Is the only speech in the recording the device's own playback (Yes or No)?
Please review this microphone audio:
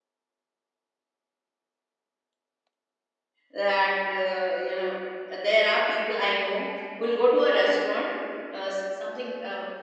No